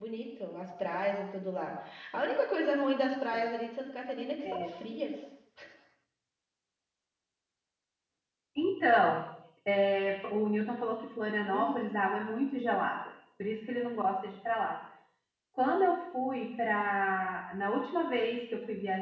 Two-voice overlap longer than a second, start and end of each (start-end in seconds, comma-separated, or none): none